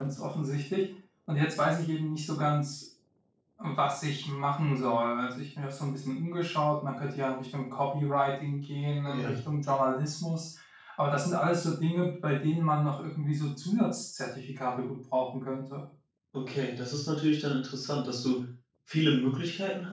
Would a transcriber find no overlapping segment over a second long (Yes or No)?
Yes